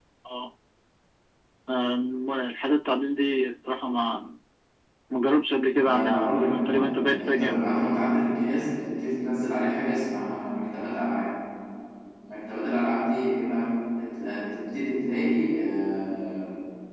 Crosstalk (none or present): present